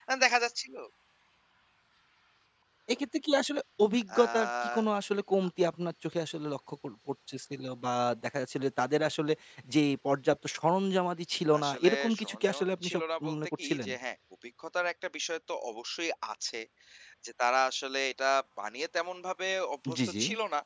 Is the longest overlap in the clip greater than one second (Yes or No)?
Yes